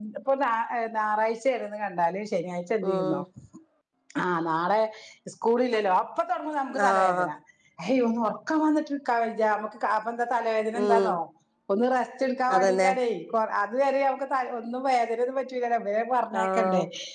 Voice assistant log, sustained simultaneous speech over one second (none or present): none